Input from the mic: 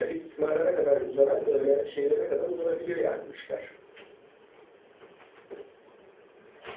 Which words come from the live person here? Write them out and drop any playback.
none

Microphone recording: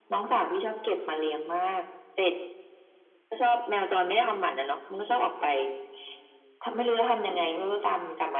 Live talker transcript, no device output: none

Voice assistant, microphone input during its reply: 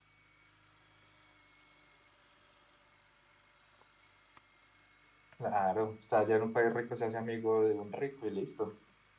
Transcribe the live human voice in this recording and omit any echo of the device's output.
Claro, está allá en un país rico, se hace amigo de un rico y listo.

